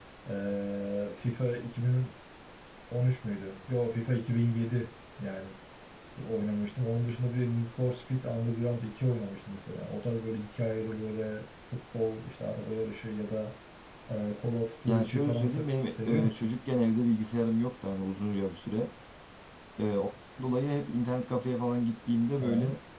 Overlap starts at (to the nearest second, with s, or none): 15 s